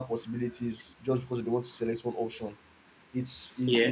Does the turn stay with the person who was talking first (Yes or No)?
Yes